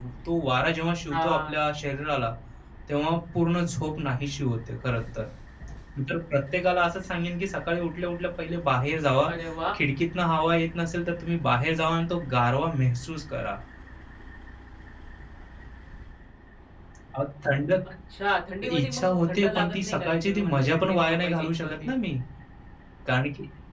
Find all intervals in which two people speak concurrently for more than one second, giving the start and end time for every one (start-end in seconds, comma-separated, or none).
18.7-21.9